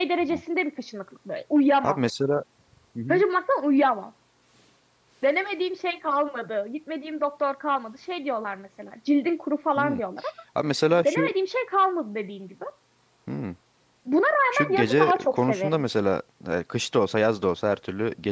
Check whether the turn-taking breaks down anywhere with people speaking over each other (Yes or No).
Yes